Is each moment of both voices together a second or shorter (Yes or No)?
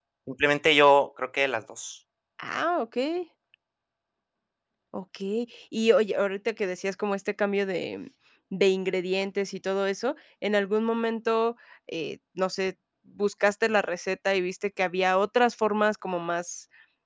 Yes